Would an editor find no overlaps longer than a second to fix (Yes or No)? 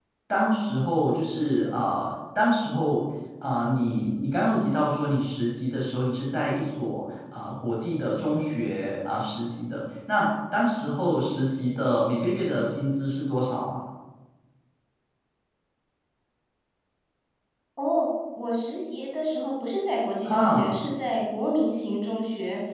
Yes